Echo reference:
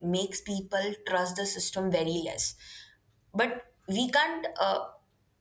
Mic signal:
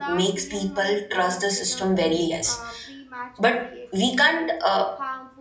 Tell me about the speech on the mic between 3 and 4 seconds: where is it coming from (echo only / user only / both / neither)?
both